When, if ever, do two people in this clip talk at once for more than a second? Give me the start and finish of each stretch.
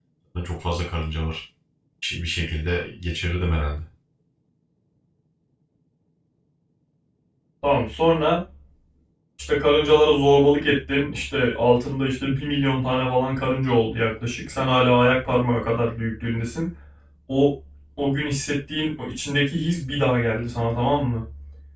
none

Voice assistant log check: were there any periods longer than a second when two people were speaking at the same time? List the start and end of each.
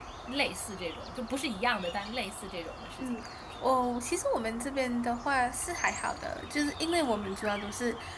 none

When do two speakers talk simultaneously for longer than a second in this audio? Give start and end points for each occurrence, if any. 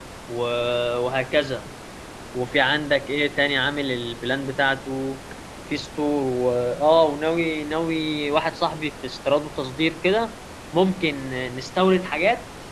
none

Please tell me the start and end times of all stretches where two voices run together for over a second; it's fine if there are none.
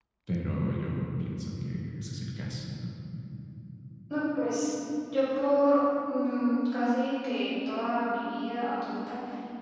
none

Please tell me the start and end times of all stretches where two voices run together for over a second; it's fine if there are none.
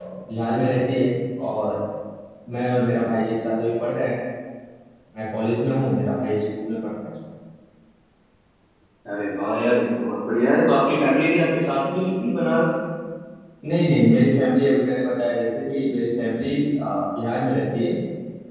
none

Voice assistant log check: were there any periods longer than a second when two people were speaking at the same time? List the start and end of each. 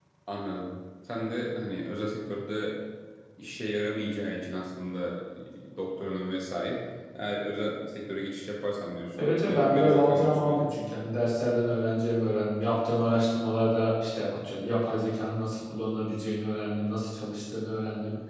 9.1-10.8

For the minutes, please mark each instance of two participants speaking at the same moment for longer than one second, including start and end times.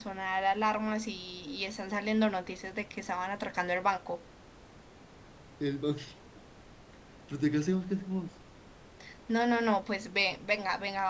none

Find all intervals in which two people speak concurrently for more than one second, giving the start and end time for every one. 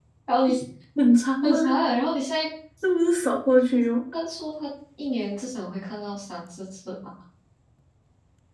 none

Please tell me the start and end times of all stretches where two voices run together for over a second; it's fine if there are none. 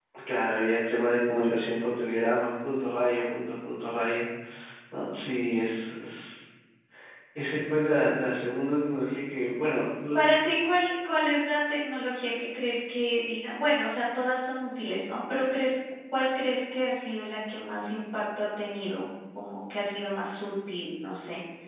none

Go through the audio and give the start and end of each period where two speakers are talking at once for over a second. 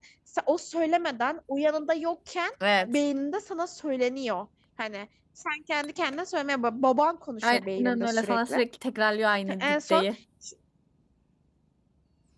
7.4-8.6

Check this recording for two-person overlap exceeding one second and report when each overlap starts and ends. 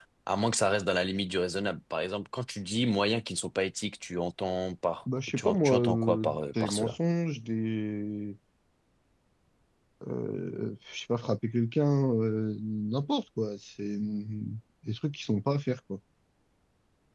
5.3-7.0

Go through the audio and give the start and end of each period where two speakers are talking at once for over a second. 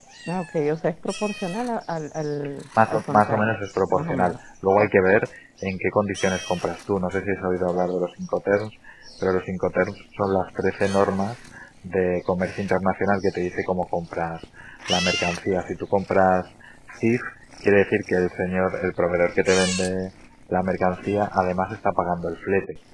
2.9-4.3

